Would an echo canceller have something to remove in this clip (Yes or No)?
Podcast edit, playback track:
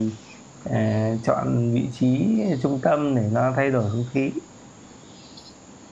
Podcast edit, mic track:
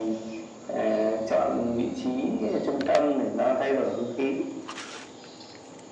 Yes